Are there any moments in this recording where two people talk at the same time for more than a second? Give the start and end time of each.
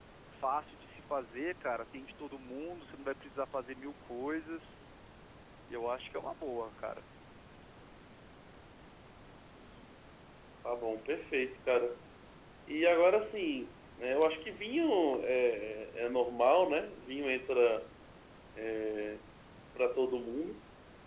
none

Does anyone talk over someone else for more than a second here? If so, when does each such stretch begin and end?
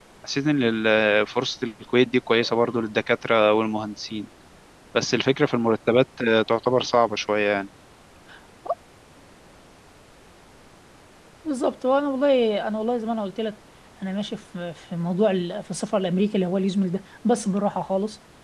none

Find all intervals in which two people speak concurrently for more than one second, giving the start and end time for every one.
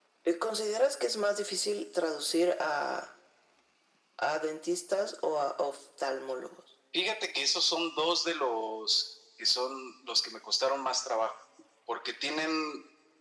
none

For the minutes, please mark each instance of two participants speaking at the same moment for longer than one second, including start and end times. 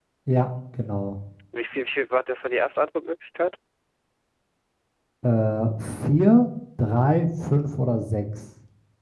none

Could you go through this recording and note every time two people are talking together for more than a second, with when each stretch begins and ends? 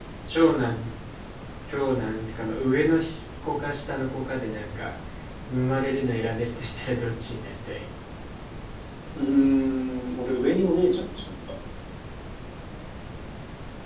none

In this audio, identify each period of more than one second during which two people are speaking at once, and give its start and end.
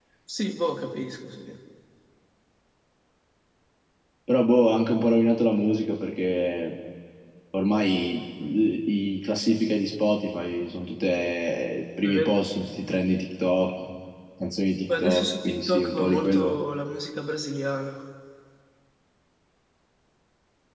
15.0-16.6

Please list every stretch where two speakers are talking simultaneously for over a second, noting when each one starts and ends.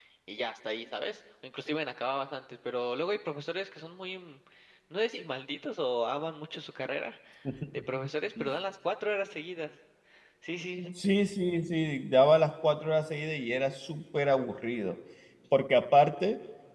none

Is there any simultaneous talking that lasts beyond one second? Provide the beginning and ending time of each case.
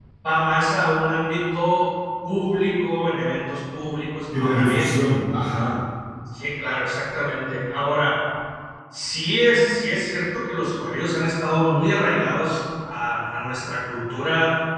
none

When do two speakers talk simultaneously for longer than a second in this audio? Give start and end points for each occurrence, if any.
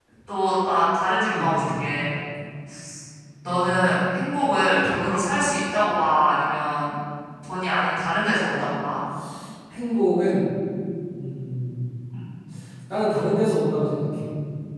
none

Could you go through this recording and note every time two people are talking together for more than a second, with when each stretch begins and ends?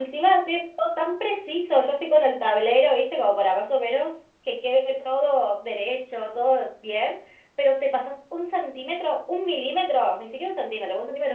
none

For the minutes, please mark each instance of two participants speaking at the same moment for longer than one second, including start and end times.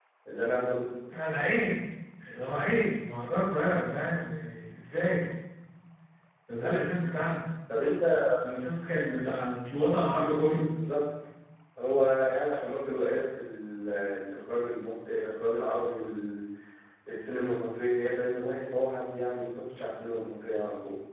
none

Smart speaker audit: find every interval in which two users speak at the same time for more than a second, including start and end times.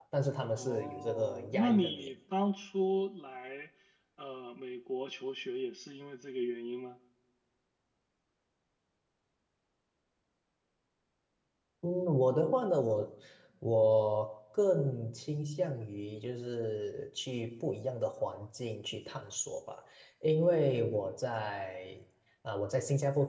0.6-2.1

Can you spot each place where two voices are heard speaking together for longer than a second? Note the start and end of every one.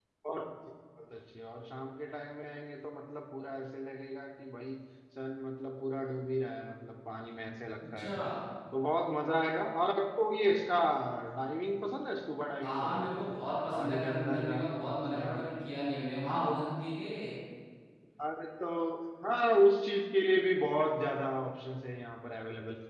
13.7-15.3

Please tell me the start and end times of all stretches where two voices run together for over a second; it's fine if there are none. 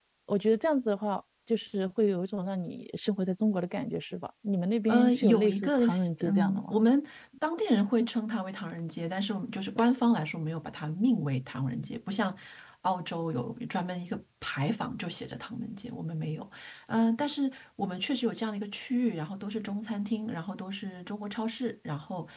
4.9-6.7

